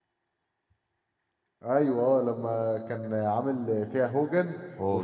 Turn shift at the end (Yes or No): No